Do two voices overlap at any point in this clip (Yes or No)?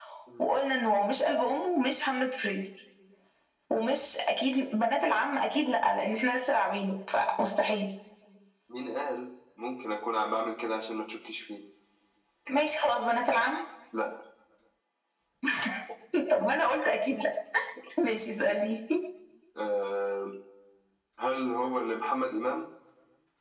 No